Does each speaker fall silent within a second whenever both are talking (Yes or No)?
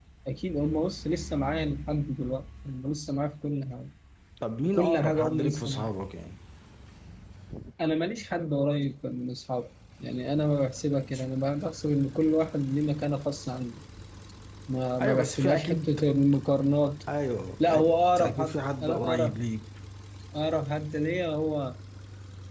No